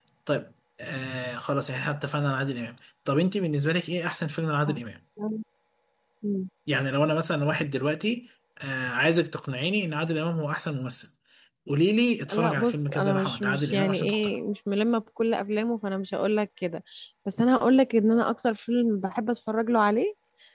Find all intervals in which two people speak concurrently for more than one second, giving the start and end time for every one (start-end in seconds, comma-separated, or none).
12.3-14.3